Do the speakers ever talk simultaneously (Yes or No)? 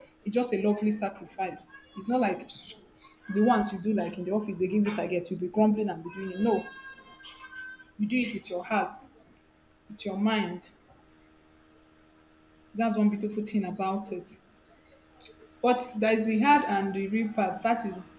No